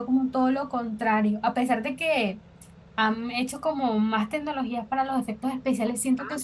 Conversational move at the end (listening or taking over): listening